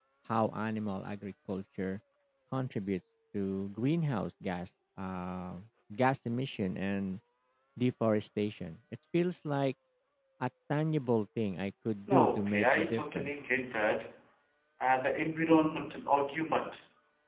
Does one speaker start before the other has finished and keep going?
Yes, from 12.1 s

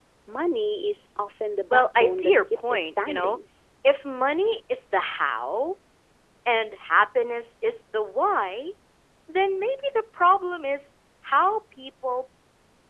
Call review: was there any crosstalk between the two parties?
Yes, from 1.7 s

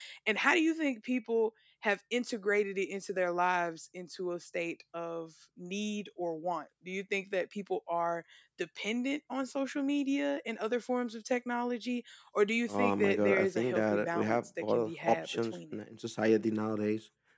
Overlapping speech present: Yes, from 12.7 s

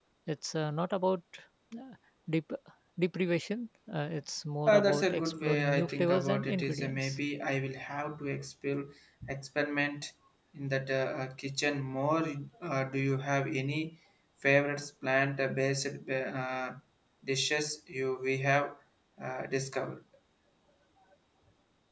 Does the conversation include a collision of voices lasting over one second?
Yes, from 4.7 s

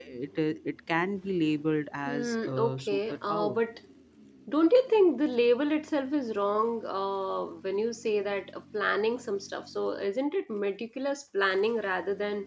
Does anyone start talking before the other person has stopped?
Yes, from 2.0 s

